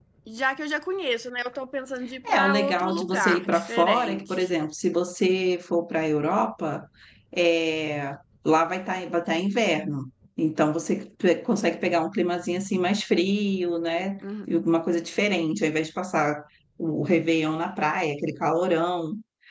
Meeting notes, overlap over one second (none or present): present